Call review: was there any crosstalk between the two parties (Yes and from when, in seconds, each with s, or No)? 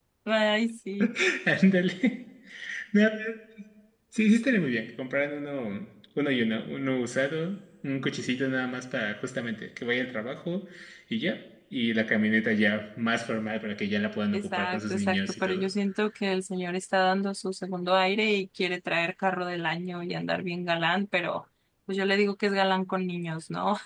Yes, from 14.3 s